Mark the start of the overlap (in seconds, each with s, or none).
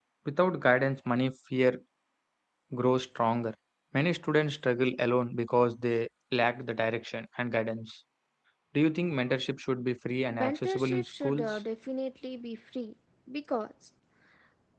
10.3 s